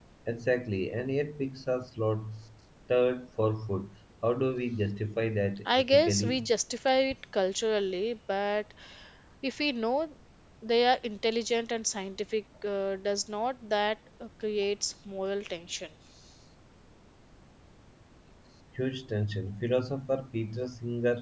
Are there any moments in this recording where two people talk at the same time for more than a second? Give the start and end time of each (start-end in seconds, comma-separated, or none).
5.2-6.4